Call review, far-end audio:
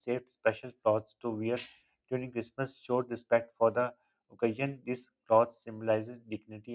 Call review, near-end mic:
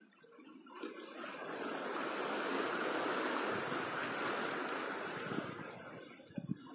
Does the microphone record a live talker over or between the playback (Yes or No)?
No